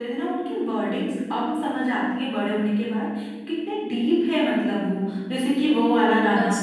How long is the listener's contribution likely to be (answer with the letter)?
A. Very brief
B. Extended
A